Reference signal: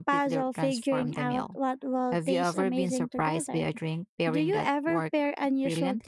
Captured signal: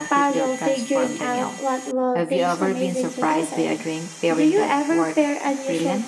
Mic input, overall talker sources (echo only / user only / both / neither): echo only